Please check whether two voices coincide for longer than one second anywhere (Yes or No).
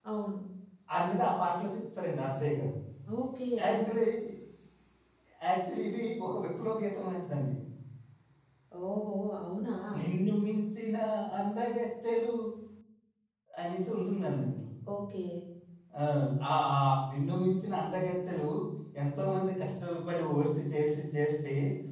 No